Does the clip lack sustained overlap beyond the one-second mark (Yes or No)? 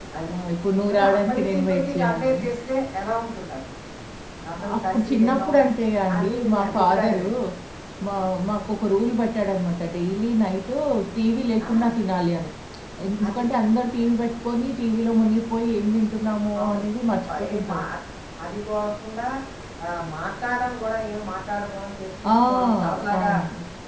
No